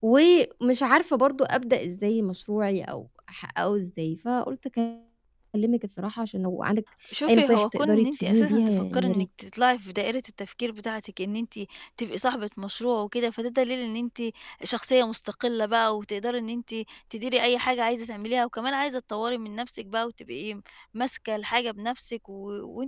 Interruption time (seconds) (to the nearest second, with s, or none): 7 s